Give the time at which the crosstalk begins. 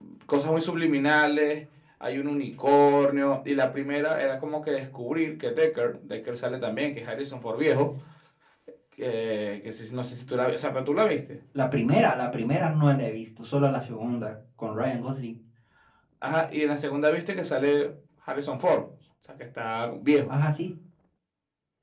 none

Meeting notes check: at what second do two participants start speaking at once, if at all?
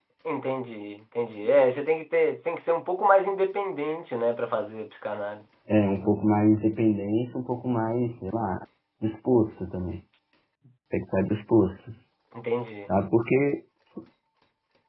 none

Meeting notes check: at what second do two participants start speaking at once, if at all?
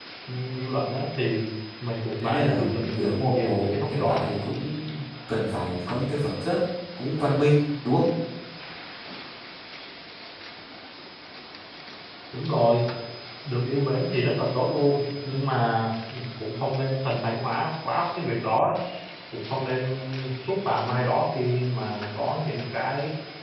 2.2 s

